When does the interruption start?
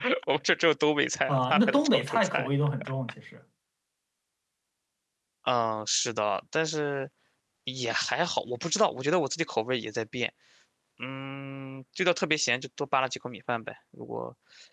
1 s

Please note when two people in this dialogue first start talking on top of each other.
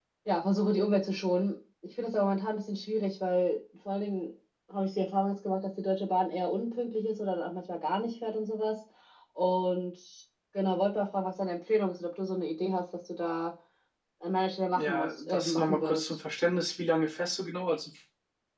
15 s

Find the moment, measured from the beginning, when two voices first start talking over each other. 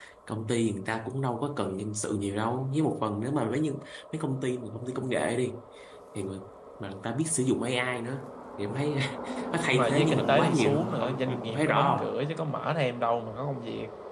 10 s

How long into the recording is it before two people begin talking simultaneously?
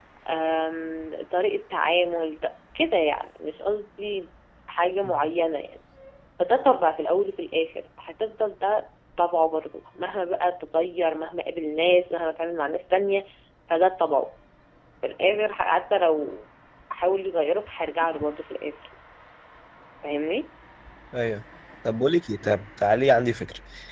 none

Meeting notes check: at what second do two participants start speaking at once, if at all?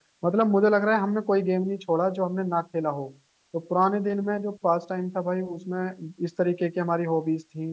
none

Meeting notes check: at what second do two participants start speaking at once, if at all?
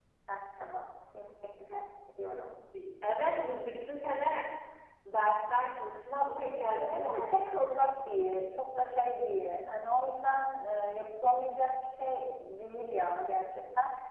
7 s

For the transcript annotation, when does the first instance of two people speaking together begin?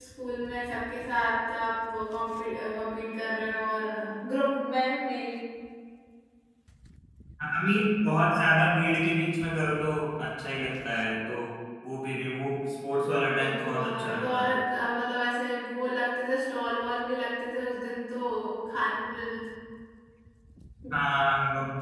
13 s

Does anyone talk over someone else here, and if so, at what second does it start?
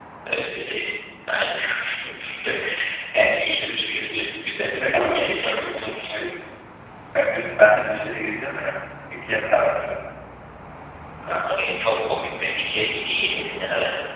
5 s

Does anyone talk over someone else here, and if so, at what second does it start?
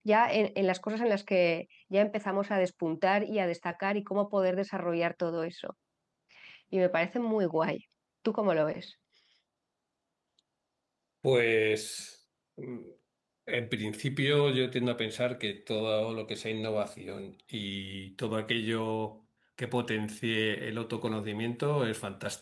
none

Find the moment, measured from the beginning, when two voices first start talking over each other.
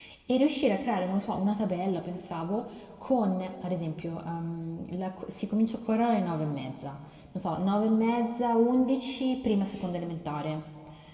none

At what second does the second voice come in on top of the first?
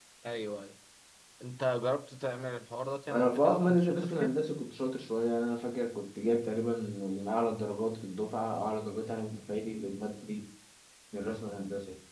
3 s

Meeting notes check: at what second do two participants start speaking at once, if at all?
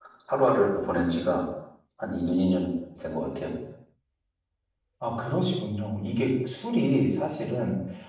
none

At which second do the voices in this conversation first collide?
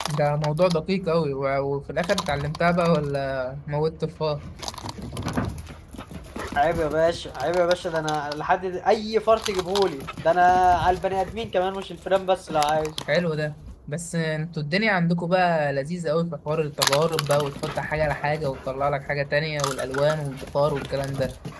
none

